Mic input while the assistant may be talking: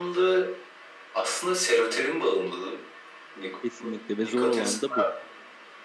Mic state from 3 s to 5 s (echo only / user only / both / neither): both